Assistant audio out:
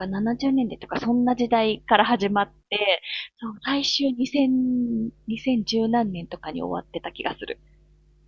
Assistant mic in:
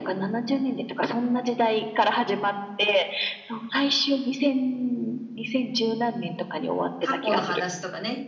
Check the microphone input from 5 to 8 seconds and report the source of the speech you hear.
both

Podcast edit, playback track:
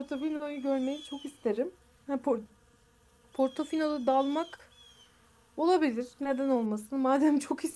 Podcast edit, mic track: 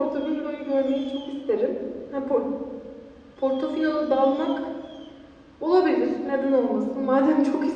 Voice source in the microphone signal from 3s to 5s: echo only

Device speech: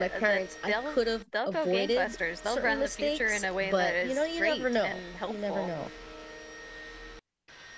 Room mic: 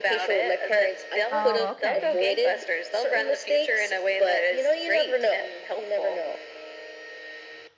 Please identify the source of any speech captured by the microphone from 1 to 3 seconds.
both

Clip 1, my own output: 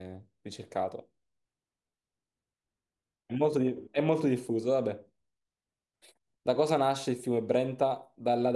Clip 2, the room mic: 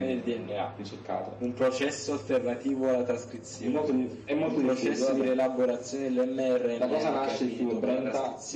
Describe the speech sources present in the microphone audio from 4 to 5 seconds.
both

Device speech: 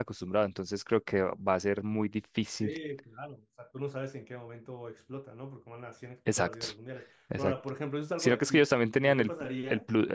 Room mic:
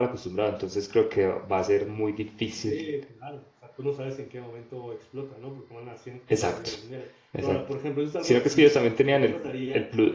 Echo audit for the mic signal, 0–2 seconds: echo only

